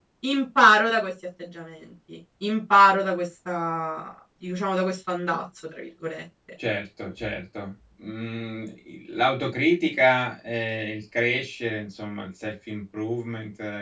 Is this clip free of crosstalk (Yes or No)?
Yes